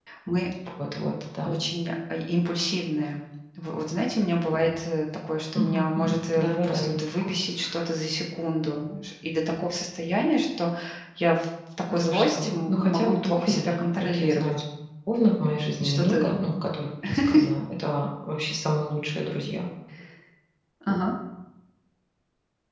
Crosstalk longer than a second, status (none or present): present